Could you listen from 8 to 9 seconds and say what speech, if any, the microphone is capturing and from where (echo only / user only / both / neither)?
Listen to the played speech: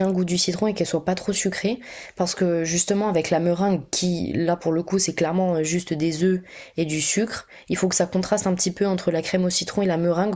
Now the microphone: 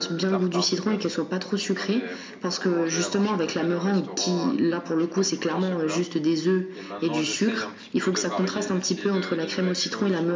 both